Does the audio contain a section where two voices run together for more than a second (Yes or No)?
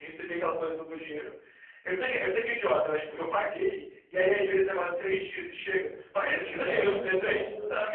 Yes